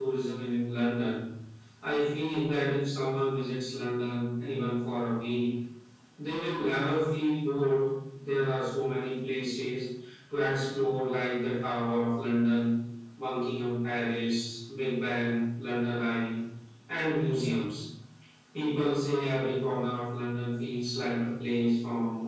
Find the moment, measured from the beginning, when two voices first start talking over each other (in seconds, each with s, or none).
none